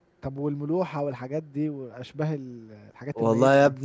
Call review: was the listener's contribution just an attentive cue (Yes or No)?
No